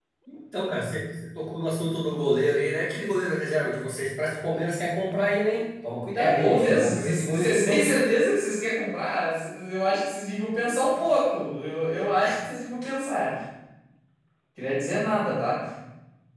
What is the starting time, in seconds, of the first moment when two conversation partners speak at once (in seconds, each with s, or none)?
6.1 s